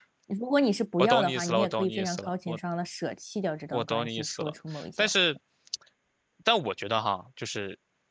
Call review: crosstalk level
present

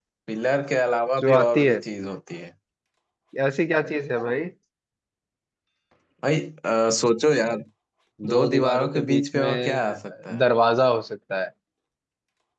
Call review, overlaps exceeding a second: present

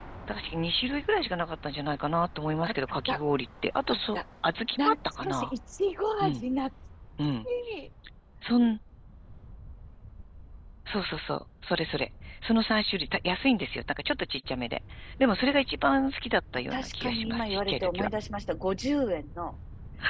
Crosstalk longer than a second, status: present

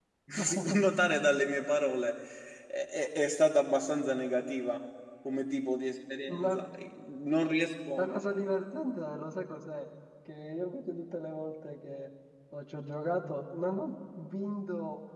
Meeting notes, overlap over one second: none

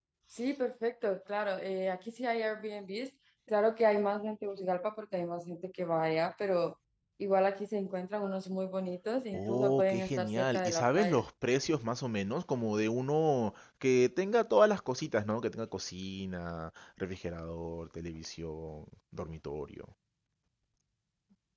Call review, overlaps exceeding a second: present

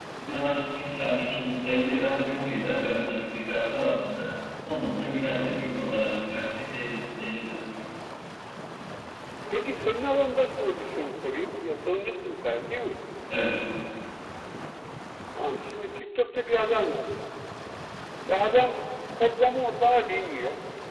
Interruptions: none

